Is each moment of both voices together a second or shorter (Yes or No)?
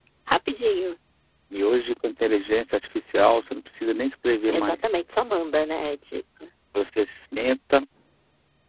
Yes